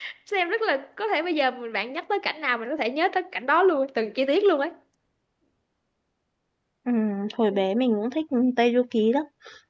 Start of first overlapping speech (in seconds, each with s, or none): none